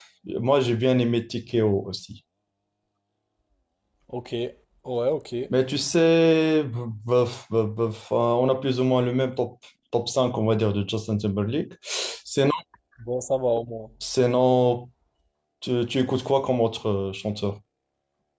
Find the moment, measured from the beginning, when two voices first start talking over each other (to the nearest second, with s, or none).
none